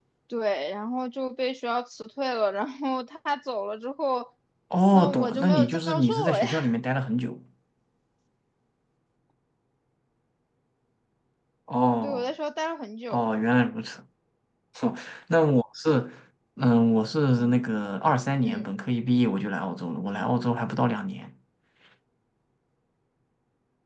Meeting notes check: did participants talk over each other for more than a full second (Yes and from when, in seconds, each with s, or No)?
Yes, from 4.9 s